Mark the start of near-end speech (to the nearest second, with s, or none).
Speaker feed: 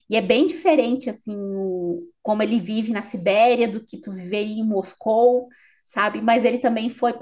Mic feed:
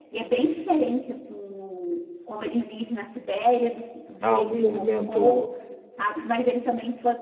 4 s